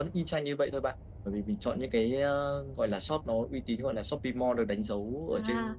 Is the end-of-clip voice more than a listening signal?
Yes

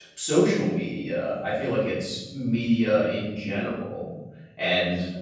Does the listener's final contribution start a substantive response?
No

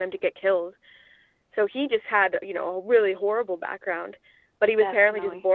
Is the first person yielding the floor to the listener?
No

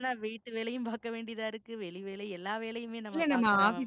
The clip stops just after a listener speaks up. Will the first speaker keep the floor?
No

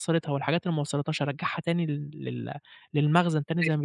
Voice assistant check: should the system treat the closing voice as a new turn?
Yes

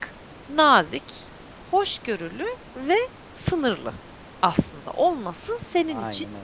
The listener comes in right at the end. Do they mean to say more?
No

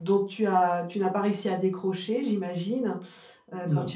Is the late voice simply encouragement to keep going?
Yes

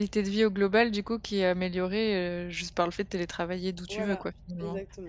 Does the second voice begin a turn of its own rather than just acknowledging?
Yes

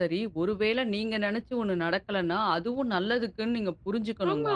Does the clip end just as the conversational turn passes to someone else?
Yes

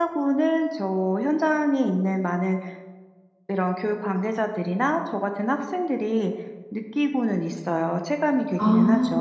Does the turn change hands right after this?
Yes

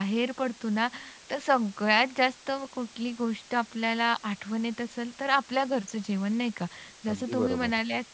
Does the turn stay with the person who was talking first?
Yes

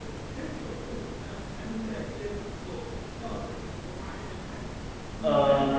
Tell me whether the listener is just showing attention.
No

